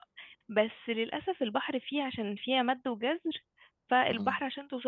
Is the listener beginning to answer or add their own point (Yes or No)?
No